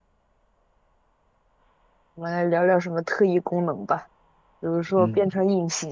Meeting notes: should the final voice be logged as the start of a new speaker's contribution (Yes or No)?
No